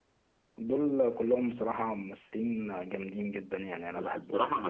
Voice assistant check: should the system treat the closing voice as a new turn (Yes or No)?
Yes